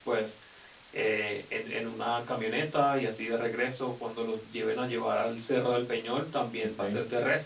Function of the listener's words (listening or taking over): listening